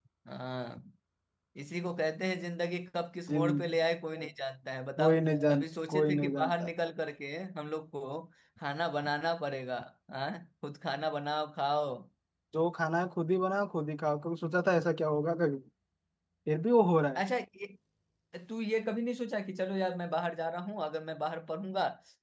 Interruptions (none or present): present